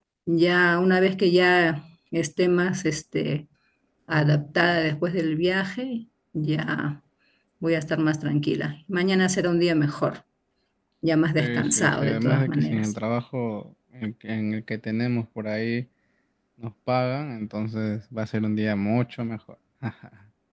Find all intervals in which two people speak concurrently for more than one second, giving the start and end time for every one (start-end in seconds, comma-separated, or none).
11.4-12.9